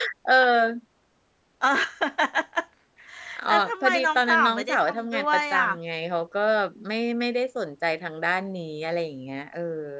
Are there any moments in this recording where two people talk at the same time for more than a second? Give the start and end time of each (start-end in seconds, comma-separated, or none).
3.5-5.7